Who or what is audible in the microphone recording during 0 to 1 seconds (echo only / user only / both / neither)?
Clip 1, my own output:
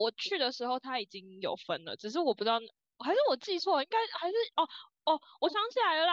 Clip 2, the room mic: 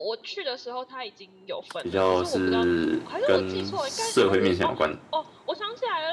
echo only